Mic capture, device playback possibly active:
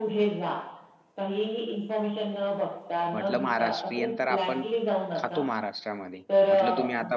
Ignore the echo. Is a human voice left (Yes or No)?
Yes